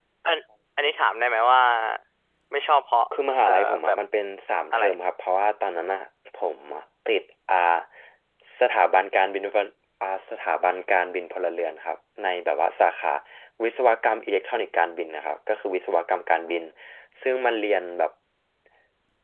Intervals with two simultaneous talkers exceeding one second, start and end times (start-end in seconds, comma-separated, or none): none